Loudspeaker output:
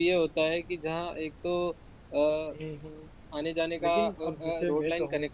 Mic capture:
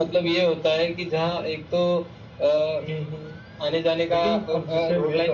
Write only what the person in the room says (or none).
none